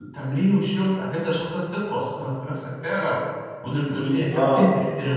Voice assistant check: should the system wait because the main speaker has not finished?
Yes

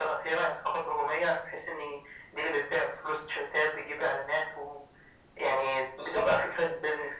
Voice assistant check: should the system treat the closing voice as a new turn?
No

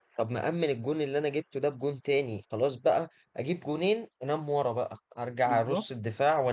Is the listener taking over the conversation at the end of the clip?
No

